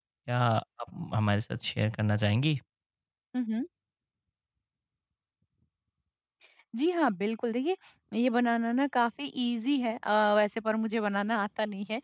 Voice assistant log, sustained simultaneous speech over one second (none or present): none